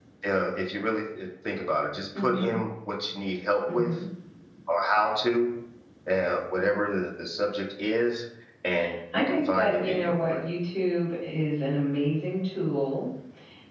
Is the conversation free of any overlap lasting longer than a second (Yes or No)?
No